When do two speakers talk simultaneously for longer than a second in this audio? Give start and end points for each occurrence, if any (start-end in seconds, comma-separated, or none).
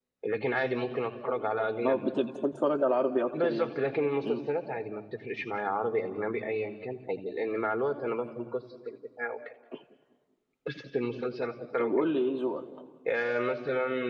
none